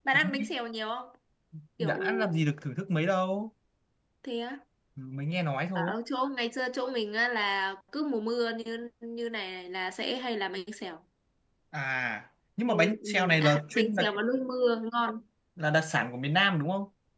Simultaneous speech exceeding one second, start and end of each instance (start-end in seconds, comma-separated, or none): 12.6-14.1